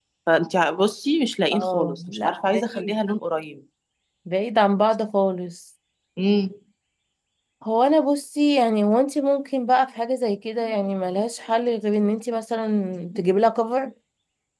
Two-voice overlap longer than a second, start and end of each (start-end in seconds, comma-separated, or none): 1.5-2.9